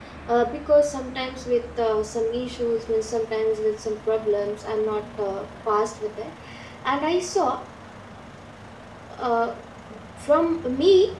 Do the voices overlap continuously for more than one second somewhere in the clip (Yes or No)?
No